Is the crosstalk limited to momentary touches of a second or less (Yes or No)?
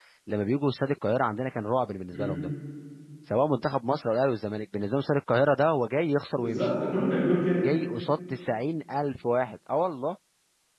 Yes